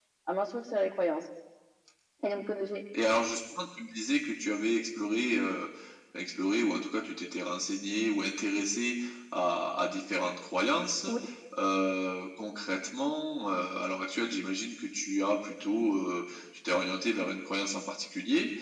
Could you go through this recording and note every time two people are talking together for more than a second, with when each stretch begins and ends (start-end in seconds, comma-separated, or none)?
none